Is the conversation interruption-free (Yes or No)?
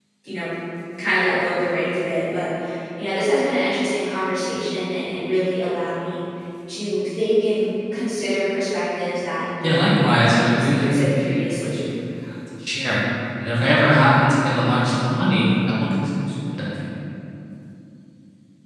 No